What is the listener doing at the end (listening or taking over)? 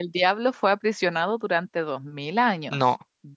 listening